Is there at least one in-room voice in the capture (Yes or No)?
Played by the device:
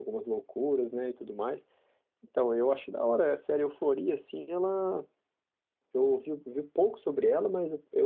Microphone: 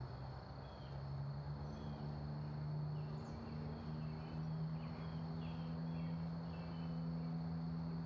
No